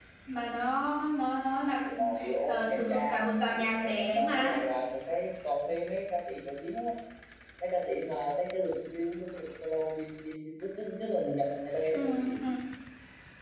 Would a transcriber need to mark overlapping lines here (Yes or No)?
Yes